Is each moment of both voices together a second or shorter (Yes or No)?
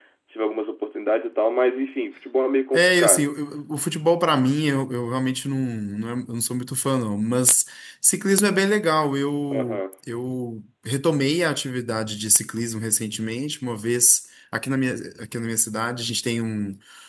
Yes